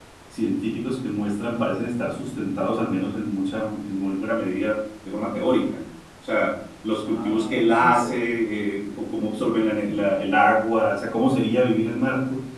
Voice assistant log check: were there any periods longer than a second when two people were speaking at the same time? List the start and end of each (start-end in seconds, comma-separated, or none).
7.1-8.4